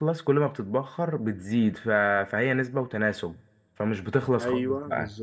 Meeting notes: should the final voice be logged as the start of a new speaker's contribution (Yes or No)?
Yes